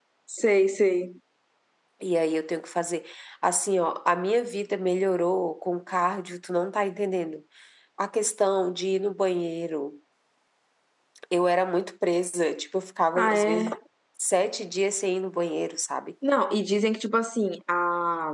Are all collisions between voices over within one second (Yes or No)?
Yes